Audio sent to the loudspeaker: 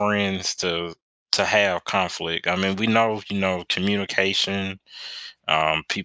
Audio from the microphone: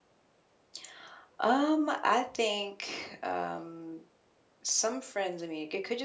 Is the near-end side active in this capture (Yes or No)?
Yes